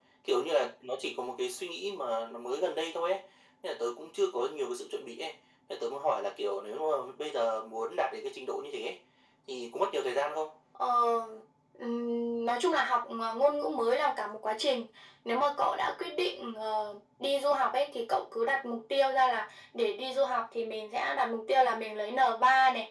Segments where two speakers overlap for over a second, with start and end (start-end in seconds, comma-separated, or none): none